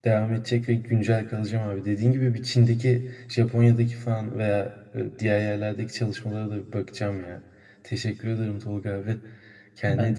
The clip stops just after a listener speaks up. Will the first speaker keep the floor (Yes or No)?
No